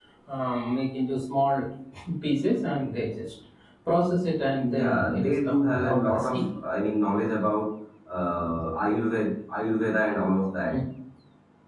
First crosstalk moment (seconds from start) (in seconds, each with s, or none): 4.6 s